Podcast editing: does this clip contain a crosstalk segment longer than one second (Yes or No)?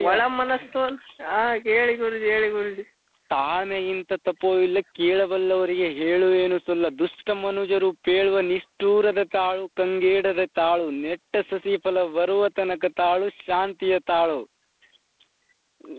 No